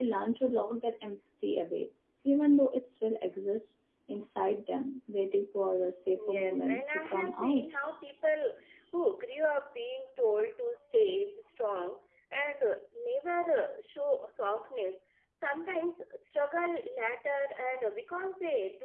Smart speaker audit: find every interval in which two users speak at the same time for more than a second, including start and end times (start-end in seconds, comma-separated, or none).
6.3-7.7